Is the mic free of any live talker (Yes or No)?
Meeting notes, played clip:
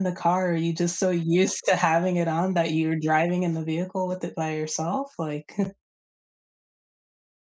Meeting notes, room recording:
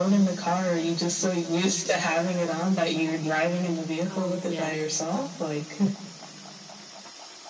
No